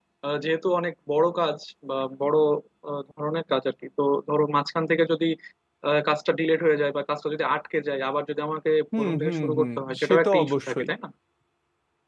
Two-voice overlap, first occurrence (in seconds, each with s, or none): 8.9 s